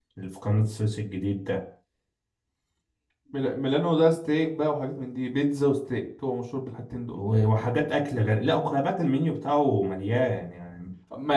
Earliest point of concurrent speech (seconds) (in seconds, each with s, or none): none